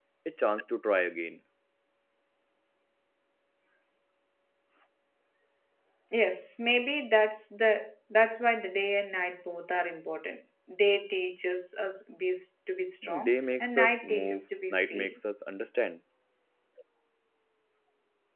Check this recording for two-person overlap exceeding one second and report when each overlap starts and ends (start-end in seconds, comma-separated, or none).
13.0-15.1